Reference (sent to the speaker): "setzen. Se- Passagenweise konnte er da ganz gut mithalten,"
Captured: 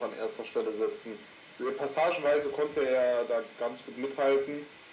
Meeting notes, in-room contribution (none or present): none